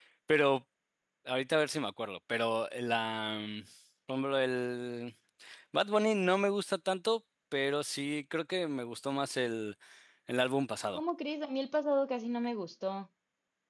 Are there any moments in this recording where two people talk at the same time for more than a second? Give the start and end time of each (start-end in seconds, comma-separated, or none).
none